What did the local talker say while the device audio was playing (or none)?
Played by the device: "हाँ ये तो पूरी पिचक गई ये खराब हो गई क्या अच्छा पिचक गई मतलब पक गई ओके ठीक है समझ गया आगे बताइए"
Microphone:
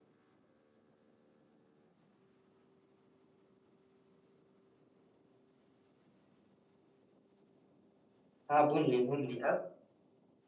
हाँ भून ली भून ली अब